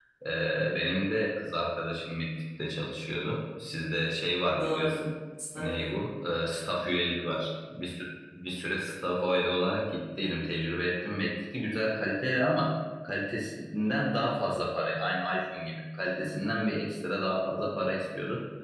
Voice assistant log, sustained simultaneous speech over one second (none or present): none